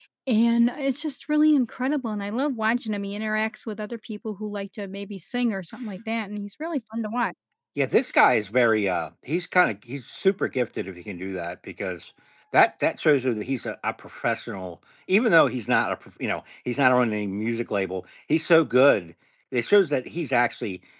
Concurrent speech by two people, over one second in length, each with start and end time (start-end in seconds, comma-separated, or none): none